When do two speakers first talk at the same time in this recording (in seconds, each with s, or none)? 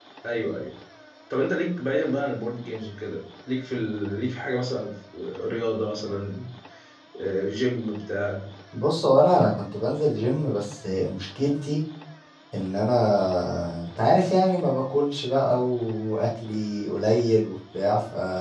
none